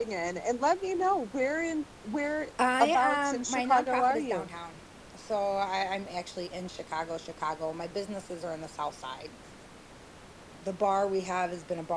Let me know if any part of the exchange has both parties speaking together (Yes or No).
Yes